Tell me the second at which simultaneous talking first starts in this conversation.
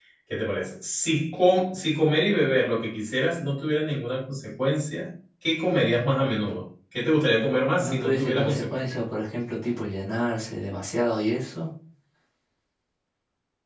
7.7 s

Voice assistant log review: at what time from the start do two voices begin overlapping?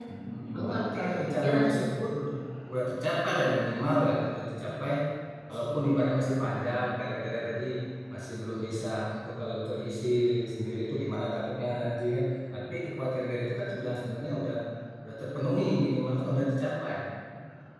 0.5 s

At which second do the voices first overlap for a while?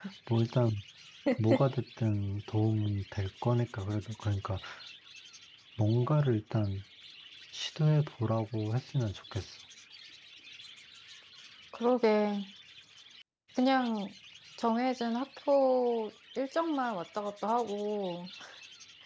none

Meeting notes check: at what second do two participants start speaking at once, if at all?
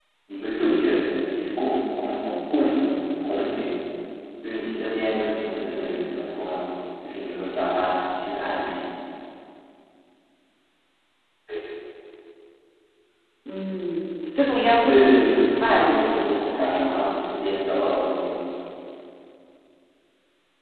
14.9 s

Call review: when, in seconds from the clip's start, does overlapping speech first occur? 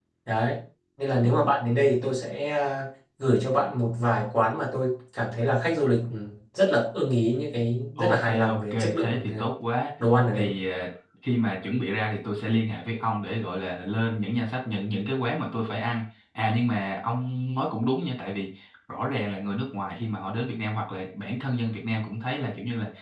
8.0 s

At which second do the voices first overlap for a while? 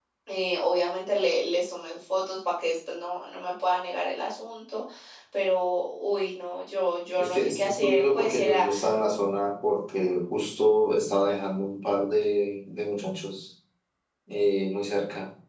7.2 s

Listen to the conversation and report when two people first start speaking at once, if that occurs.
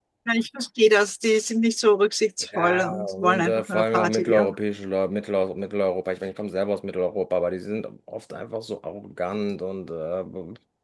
2.5 s

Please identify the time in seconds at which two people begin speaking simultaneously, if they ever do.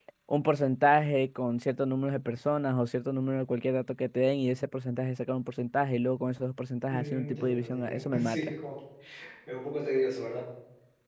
6.9 s

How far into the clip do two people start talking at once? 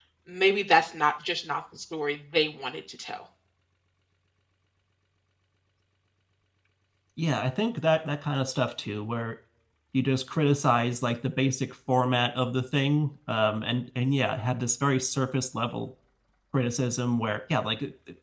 none

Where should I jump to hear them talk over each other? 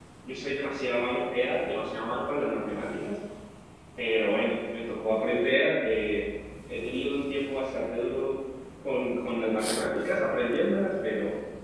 none

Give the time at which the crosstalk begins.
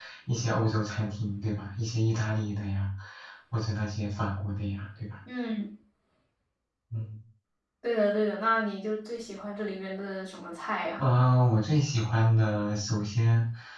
none

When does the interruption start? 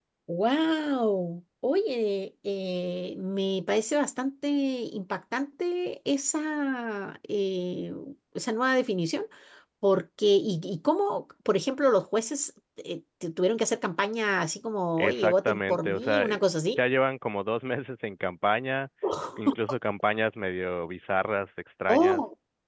15.0 s

